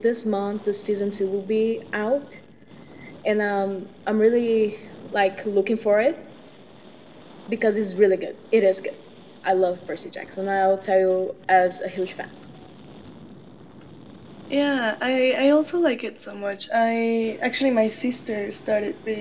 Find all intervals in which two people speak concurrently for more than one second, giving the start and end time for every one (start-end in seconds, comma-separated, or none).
none